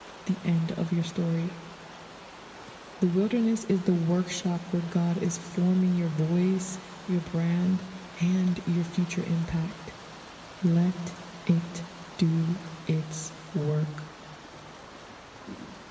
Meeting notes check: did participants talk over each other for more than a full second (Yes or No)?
No